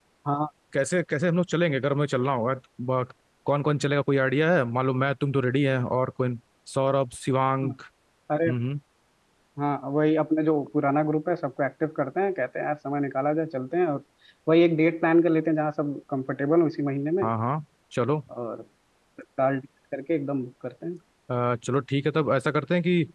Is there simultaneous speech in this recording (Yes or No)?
No